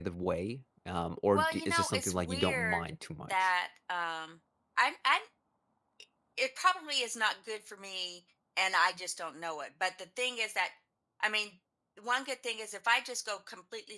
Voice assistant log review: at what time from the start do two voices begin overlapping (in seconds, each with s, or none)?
1.3 s